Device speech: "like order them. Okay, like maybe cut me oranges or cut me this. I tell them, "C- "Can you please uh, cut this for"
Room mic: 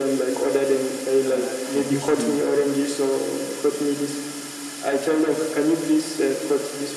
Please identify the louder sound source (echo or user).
echo